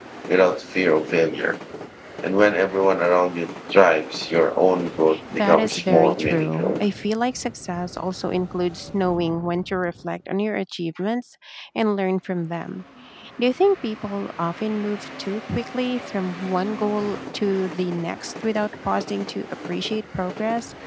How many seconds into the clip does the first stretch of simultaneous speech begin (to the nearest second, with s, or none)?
5 s